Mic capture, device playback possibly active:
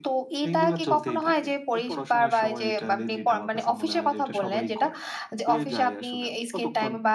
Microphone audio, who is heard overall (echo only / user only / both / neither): both